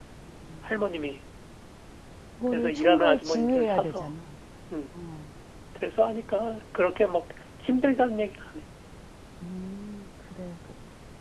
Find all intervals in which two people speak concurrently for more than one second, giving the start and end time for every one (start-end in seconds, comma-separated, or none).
2.5-4.1